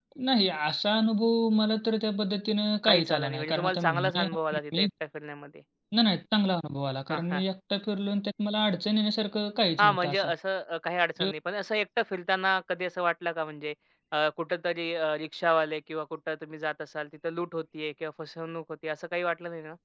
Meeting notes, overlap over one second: present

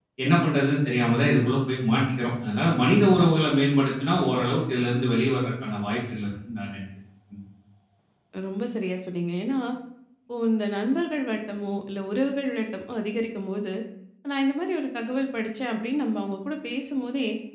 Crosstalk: none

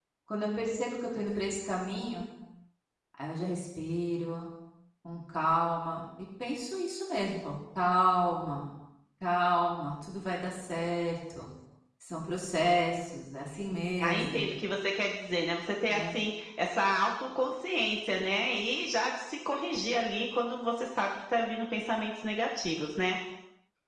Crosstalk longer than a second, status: none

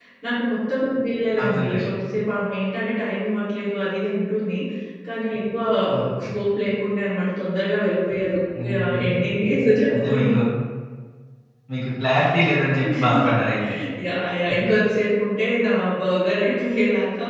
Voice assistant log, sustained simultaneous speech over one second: none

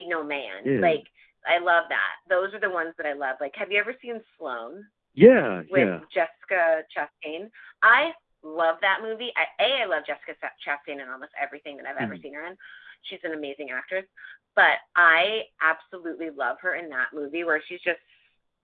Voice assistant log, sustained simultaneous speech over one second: none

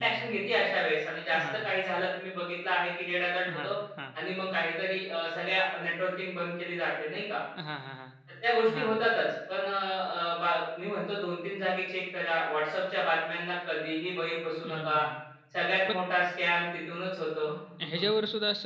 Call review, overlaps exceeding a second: none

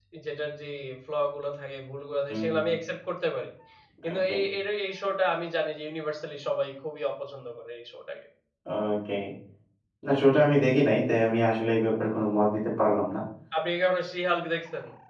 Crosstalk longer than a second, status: none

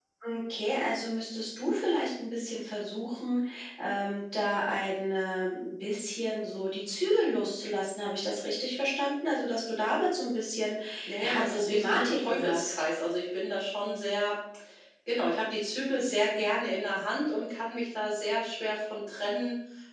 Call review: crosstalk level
present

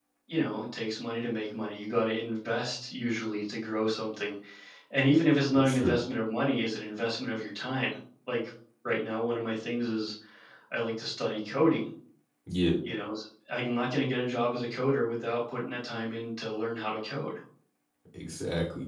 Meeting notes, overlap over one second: none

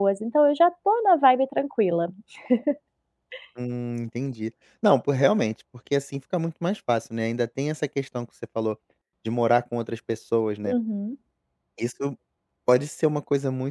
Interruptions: none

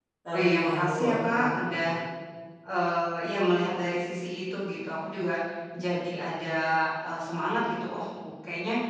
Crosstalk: present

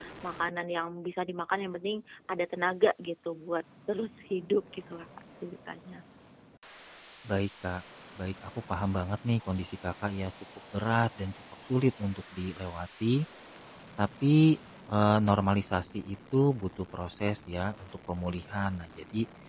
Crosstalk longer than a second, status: none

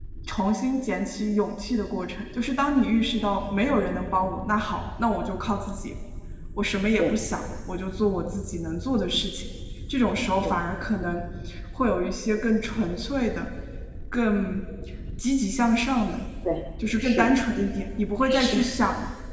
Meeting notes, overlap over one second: none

